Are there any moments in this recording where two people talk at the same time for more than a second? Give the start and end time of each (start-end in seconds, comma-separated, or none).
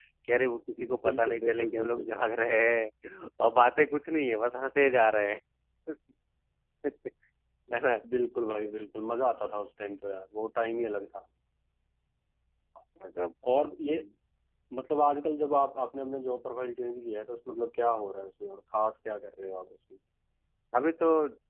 0.8-2.1